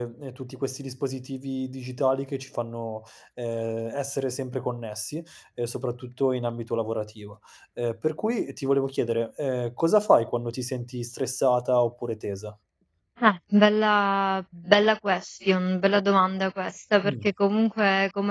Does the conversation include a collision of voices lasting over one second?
No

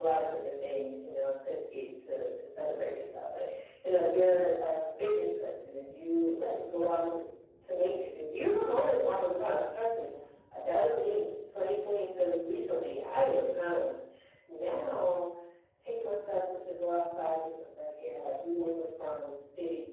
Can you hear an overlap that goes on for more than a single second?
No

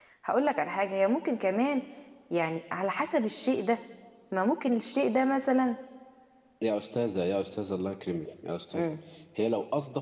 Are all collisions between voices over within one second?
Yes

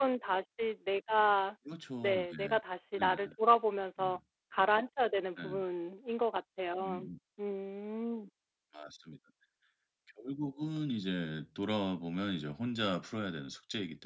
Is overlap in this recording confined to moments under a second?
Yes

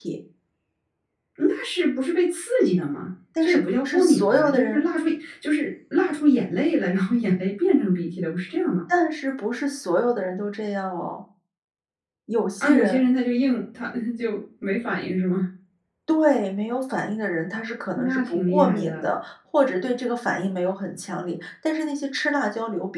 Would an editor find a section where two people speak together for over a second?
Yes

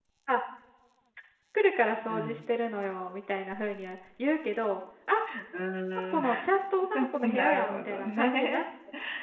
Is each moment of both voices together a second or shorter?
No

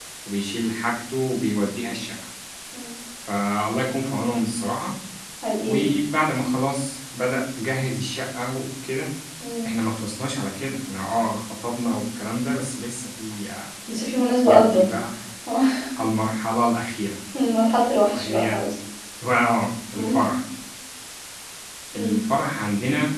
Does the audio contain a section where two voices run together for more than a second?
No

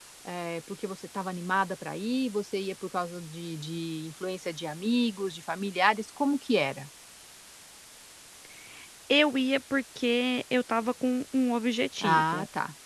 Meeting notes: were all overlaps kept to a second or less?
Yes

